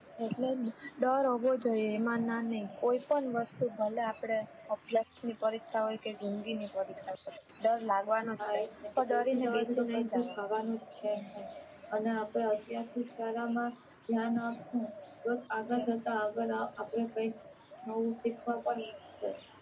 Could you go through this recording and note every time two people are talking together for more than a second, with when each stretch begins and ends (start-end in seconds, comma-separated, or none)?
9.1-10.3